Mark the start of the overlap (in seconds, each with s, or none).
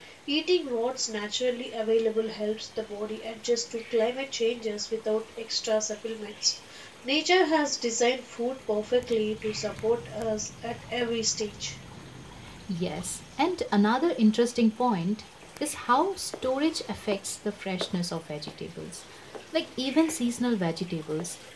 none